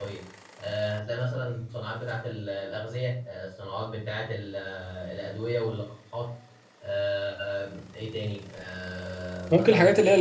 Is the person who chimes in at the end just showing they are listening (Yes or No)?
No